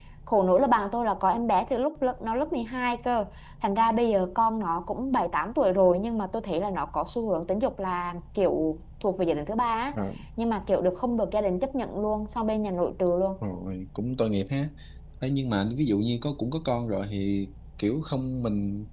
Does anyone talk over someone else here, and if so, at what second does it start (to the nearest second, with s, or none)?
none